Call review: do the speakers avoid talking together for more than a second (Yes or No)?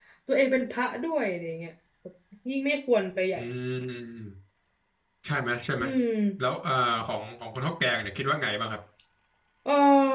Yes